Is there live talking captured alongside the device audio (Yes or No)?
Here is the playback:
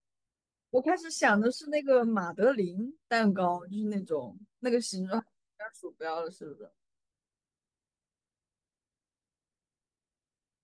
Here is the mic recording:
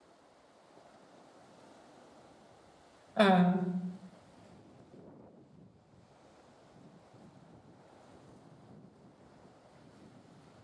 Yes